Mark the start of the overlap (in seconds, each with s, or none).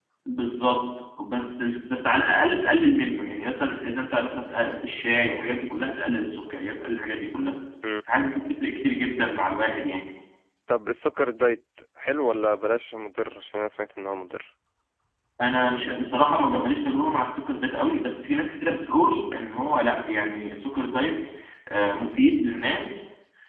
none